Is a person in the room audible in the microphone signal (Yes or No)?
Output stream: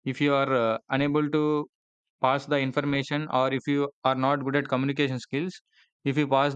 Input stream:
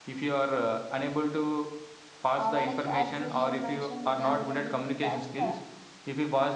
Yes